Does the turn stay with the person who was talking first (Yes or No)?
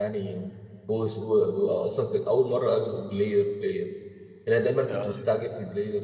Yes